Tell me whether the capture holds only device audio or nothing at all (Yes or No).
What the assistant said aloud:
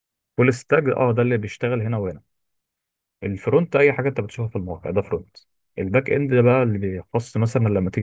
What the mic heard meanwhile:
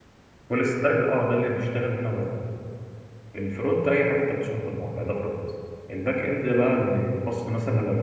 Yes